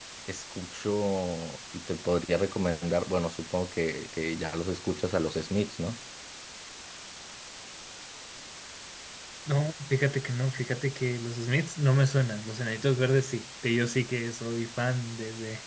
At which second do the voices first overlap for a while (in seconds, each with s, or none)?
none